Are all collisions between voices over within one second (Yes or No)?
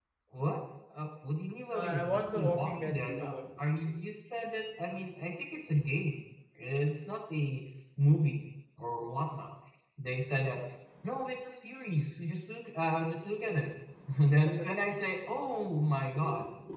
No